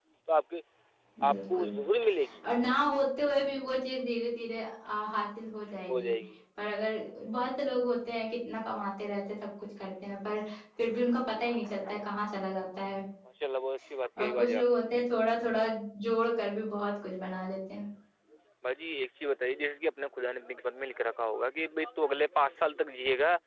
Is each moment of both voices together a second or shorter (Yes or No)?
Yes